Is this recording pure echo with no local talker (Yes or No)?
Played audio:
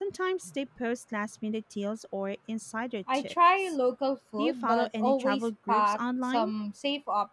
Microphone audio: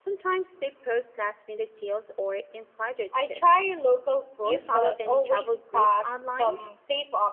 Yes